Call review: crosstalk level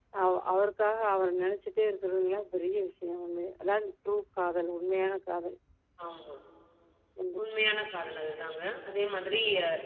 none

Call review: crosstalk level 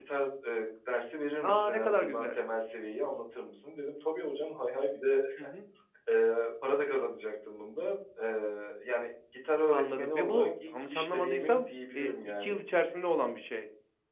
present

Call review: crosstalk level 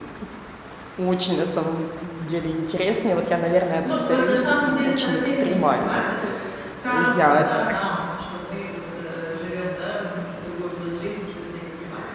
present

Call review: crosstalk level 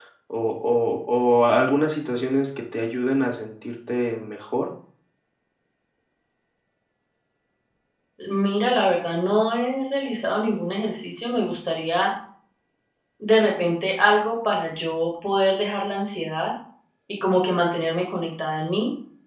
none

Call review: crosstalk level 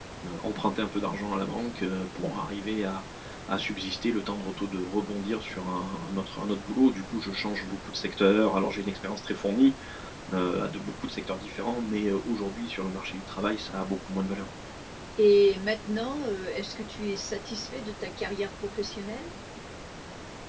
none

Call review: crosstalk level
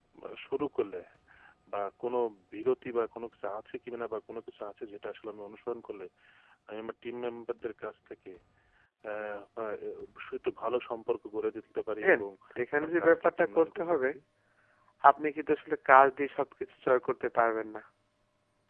present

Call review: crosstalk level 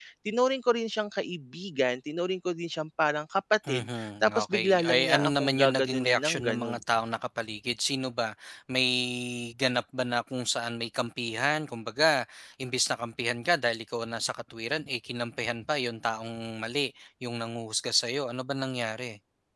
present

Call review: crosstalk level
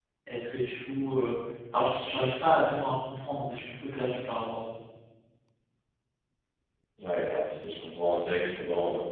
none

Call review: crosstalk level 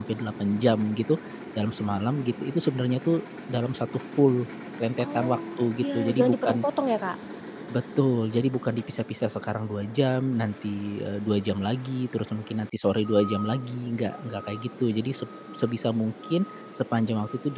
present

